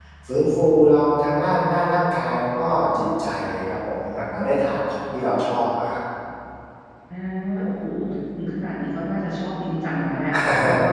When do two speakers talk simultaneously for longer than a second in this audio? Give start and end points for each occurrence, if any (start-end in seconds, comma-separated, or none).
none